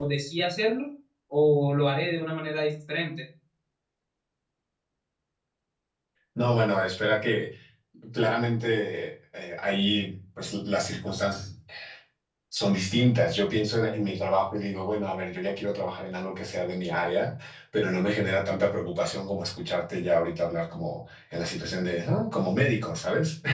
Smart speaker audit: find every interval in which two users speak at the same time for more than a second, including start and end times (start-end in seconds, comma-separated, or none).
none